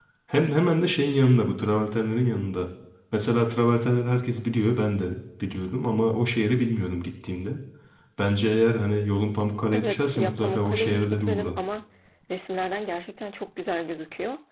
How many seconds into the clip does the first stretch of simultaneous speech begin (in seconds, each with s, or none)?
9.7 s